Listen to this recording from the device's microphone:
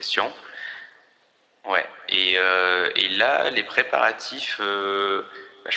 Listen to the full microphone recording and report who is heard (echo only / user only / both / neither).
echo only